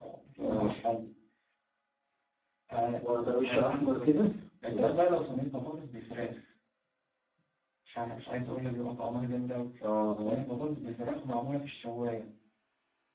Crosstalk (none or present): present